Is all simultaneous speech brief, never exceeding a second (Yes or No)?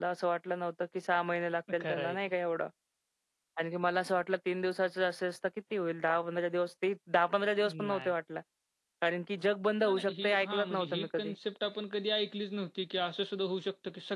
No